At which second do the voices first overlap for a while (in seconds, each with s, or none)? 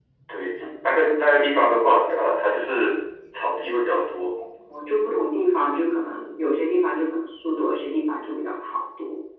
none